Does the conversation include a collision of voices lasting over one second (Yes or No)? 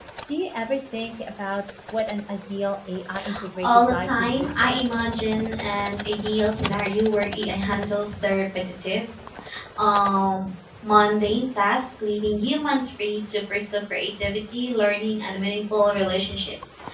Yes